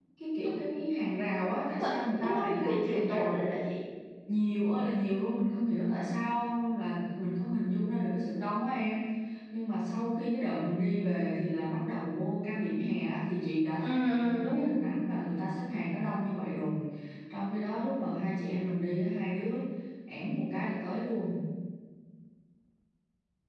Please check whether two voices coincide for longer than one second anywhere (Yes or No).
Yes